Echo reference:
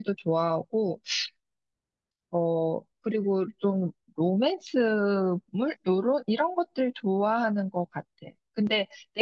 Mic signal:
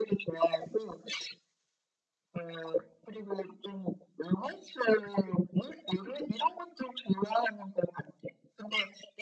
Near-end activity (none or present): none